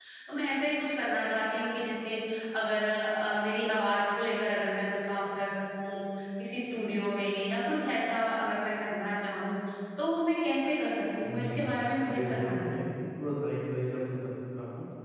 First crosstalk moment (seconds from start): 11 s

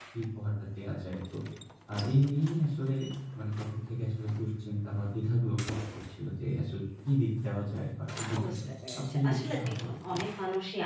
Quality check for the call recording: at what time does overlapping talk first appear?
8 s

